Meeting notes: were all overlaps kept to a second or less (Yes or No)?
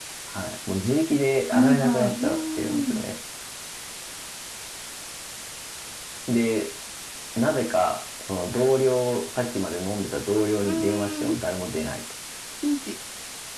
No